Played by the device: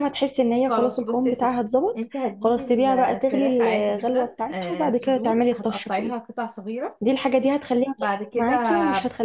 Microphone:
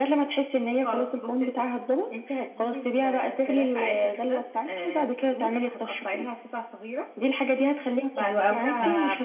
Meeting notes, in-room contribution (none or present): present